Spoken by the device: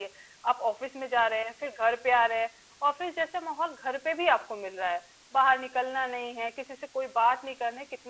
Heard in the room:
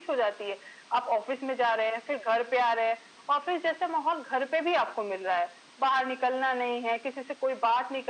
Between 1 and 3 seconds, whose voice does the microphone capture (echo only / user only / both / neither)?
echo only